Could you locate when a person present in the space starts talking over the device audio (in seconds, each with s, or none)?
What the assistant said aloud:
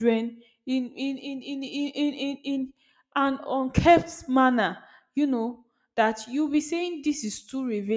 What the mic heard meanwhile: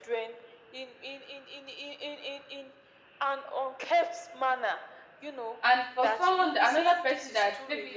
5.6 s